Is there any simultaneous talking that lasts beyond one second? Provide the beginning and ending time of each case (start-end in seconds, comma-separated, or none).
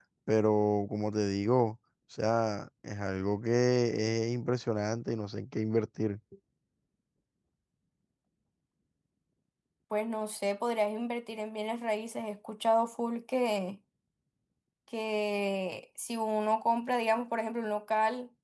none